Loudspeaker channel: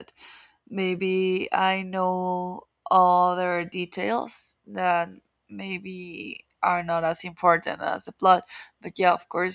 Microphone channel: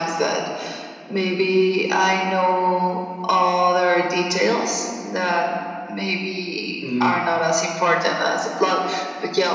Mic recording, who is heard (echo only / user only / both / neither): both